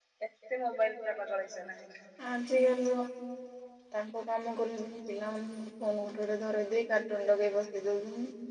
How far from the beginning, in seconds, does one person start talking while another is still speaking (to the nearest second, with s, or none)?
none